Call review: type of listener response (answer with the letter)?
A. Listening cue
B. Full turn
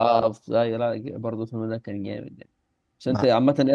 A